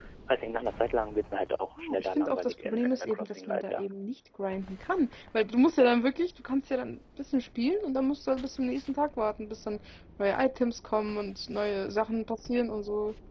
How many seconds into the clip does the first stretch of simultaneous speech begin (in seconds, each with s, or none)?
1.8 s